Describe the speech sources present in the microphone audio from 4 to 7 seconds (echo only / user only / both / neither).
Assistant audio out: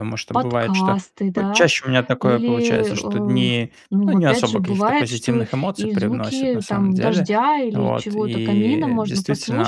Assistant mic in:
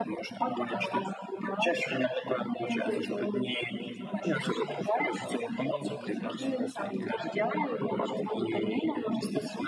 both